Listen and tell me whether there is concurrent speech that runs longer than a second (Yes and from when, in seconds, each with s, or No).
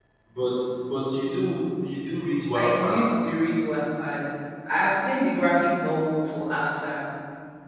No